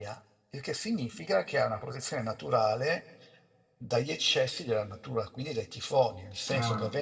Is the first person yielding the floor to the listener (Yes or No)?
No